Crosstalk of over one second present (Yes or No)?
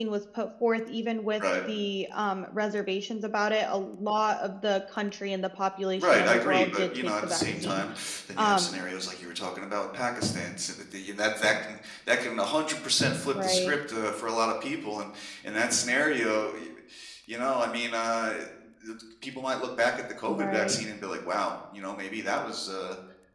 Yes